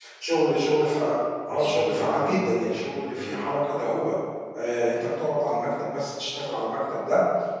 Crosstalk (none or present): present